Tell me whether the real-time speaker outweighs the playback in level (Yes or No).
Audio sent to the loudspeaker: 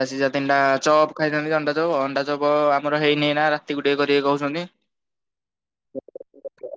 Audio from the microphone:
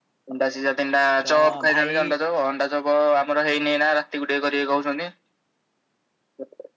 No